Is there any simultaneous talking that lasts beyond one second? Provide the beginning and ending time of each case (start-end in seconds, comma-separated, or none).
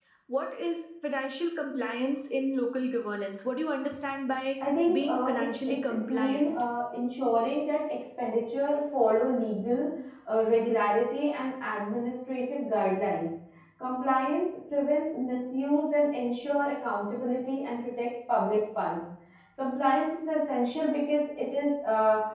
4.9-6.6